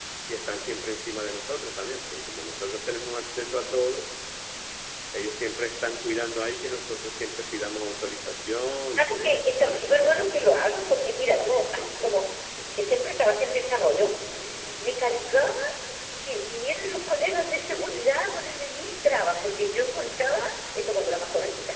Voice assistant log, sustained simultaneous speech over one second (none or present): present